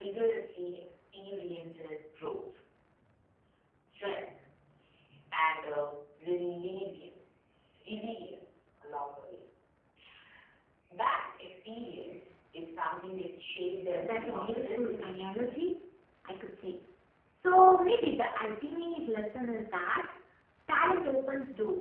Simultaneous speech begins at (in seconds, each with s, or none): 14.0 s